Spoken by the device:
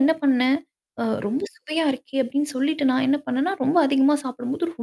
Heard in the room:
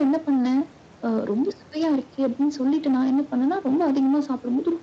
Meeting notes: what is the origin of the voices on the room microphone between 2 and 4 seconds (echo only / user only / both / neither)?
echo only